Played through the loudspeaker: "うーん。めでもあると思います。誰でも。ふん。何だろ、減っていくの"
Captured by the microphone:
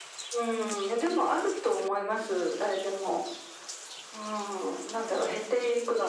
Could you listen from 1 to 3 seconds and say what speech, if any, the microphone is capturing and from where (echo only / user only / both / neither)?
echo only